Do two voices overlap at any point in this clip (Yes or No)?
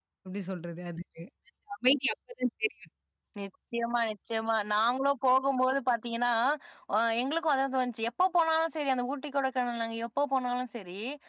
No